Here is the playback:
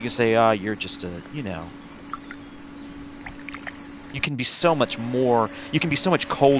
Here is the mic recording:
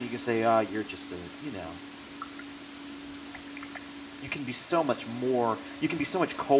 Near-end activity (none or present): none